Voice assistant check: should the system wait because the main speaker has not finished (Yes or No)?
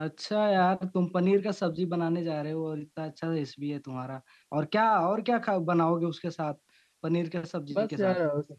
No